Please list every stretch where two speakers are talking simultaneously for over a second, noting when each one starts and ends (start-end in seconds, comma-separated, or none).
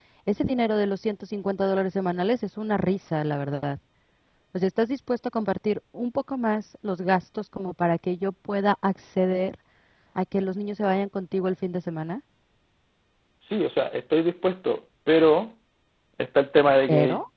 none